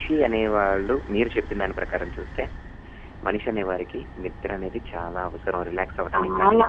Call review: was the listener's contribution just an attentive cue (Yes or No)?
Yes